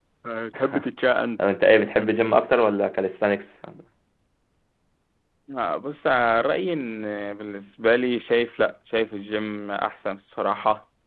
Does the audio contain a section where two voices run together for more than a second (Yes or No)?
No